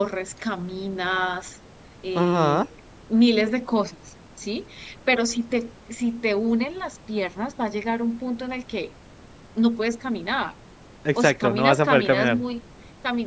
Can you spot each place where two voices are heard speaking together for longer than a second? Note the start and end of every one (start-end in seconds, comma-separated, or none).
11.2-12.4